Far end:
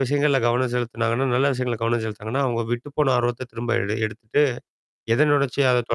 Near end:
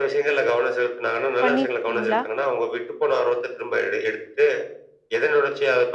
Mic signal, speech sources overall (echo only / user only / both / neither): both